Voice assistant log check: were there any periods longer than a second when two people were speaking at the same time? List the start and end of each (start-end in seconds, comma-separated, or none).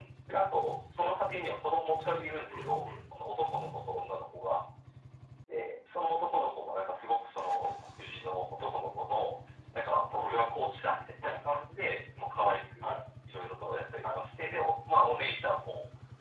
none